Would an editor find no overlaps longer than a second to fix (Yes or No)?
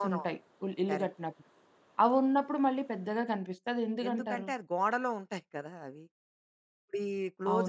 Yes